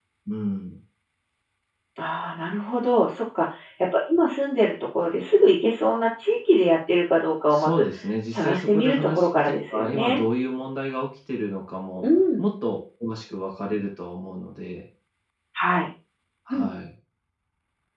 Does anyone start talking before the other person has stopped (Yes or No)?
Yes